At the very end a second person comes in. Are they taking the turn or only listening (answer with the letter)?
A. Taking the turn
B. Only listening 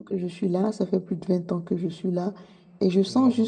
B